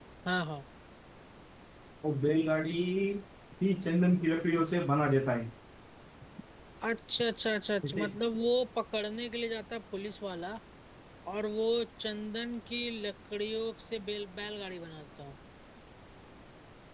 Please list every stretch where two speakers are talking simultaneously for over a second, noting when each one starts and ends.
none

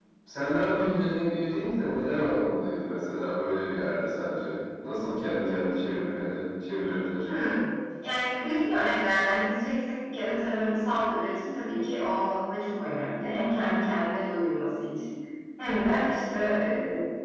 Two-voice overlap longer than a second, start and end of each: none

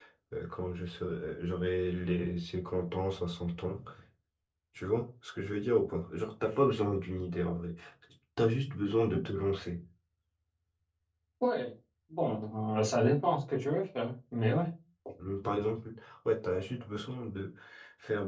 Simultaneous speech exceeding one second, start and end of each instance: none

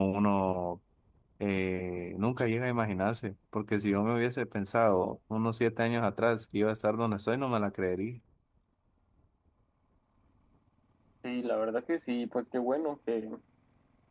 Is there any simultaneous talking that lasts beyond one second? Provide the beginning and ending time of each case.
none

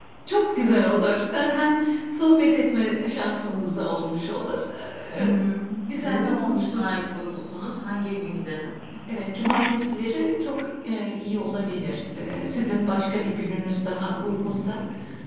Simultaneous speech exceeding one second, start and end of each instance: 6.0-7.5

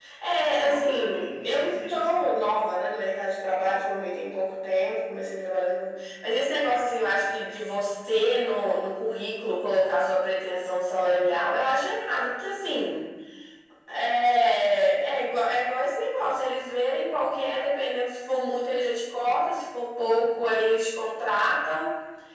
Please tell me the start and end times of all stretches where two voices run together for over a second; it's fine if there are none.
0.6-2.3

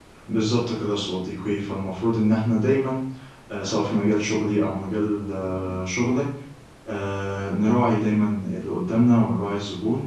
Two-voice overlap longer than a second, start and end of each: none

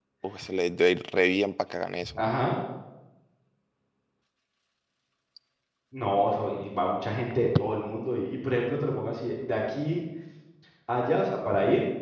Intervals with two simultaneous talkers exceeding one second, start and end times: none

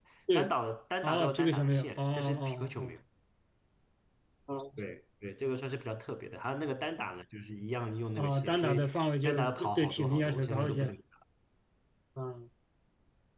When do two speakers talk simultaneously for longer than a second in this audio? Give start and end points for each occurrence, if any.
1.0-2.9, 8.2-10.9

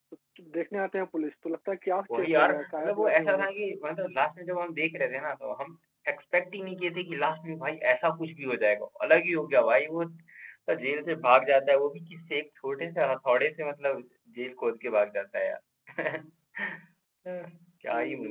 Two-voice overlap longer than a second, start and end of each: 2.1-3.5

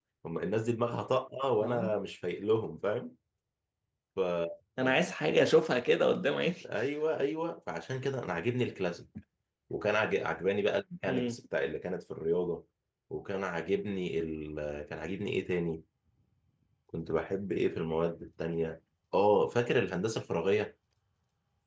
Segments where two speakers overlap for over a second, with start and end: none

